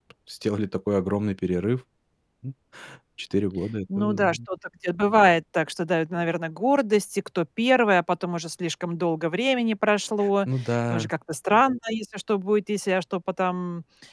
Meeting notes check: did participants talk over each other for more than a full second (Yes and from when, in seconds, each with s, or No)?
No